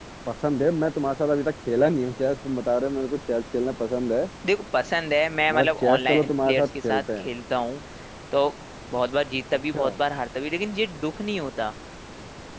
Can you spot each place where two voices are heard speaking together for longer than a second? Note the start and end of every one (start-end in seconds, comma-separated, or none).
5.5-7.3